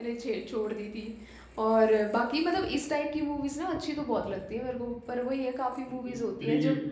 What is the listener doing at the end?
taking over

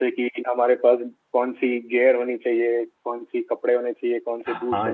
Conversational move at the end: taking over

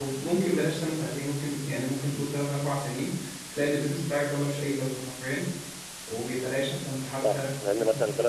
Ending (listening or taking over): taking over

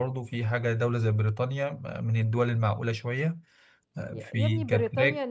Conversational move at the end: taking over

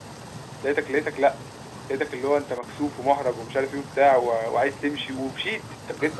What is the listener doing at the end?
taking over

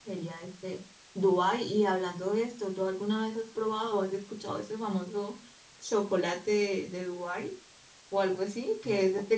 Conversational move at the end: listening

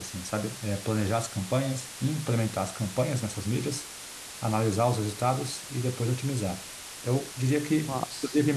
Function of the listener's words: listening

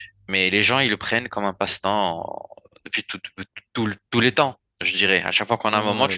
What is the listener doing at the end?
taking over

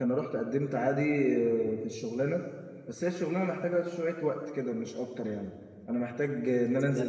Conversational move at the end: listening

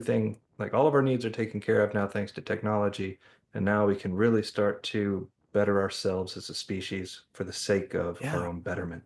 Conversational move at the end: listening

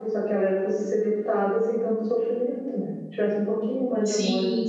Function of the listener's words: taking over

